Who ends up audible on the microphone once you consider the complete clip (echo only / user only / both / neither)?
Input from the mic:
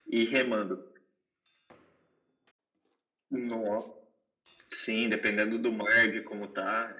echo only